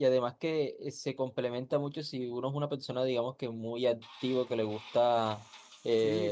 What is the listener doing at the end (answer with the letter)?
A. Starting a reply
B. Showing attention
B